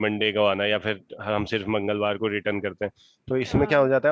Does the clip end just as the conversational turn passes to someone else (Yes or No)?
No